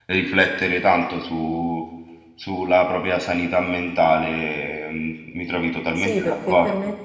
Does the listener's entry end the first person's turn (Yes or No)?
Yes